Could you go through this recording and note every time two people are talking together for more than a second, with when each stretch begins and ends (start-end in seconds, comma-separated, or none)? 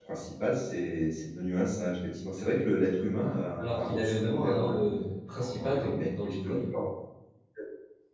3.6-4.9, 5.3-6.8